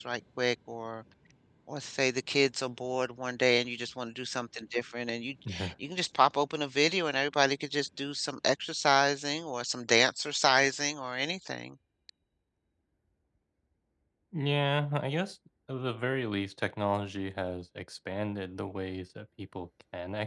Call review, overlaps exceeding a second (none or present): none